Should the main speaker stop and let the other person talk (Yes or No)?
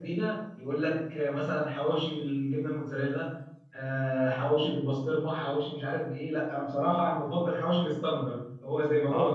Yes